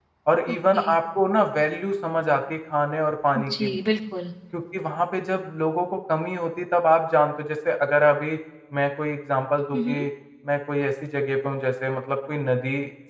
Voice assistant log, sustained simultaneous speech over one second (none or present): none